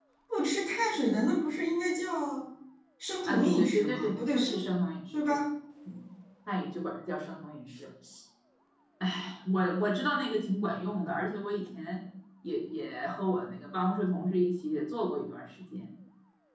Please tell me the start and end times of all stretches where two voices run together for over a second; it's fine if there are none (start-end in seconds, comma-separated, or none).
3.3-4.5